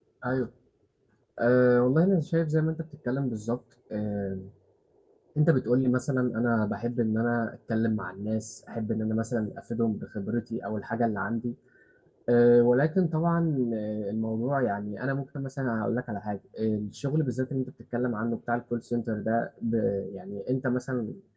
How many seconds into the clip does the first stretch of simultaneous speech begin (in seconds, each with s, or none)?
none